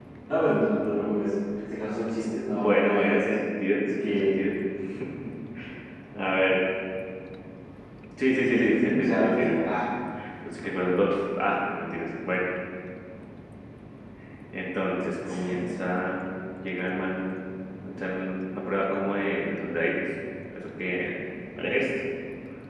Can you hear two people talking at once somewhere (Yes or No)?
Yes